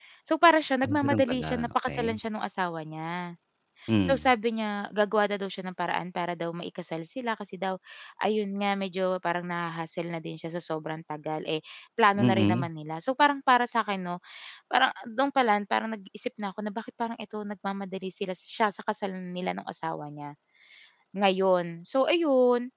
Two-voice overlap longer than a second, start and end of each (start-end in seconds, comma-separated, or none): 0.8-2.2